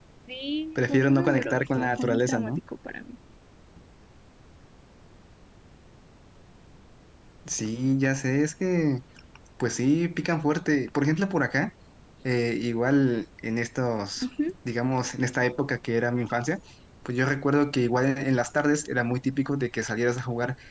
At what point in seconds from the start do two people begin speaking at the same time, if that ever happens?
0.8 s

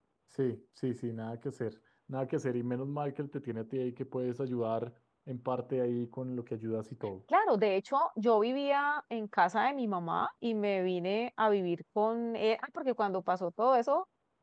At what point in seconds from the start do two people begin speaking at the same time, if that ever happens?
none

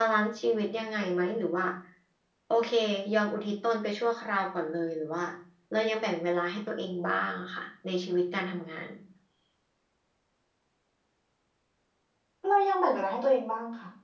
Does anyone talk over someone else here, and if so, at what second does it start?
none

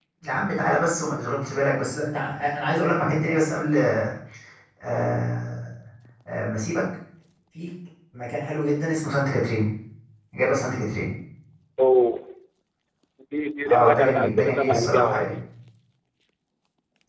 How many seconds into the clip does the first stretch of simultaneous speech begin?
13.7 s

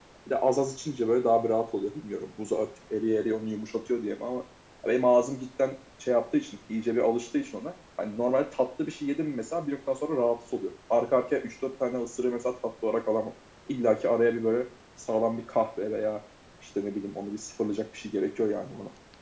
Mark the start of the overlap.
none

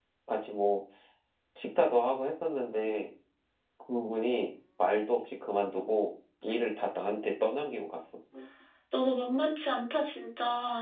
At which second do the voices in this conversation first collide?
none

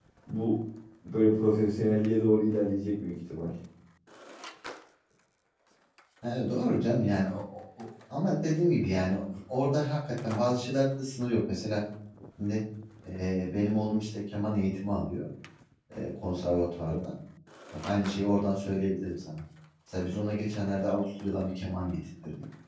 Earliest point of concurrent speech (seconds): none

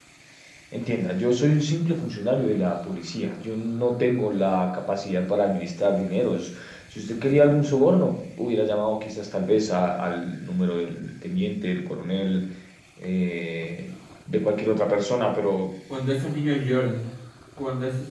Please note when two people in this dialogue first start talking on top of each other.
none

